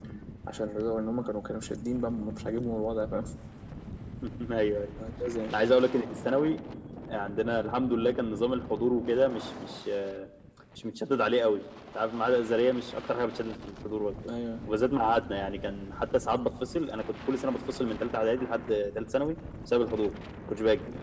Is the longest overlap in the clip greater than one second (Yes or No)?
No